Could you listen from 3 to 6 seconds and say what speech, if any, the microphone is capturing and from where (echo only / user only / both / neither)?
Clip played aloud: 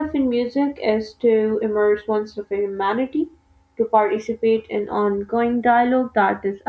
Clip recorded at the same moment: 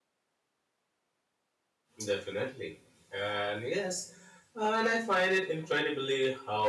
user only